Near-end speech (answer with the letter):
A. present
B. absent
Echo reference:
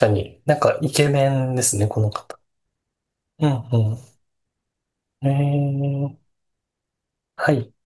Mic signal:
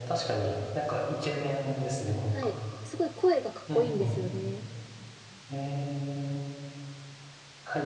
A